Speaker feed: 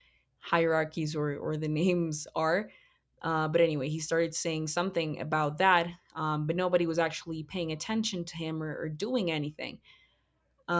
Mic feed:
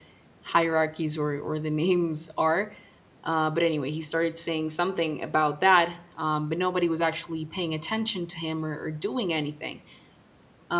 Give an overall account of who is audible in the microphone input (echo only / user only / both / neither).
echo only